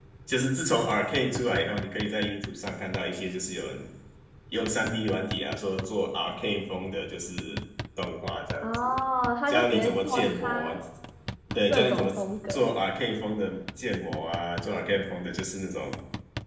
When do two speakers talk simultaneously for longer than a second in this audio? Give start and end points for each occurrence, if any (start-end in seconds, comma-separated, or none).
9.5-10.8